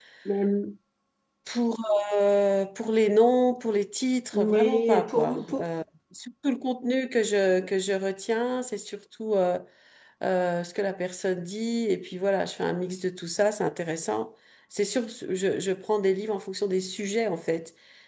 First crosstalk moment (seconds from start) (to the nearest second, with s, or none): 4 s